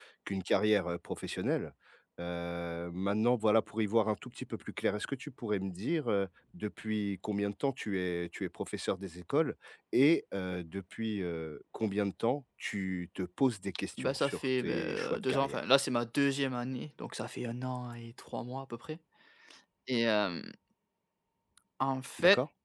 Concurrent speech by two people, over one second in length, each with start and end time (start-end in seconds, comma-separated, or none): 14.0-15.6